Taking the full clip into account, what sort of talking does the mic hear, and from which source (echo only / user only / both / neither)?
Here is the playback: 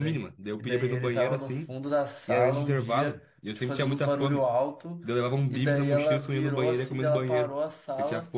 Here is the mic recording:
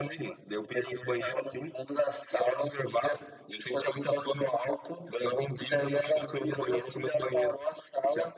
echo only